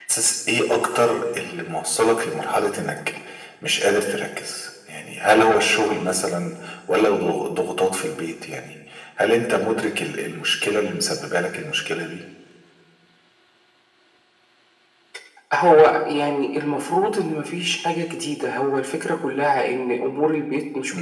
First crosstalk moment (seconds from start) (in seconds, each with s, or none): none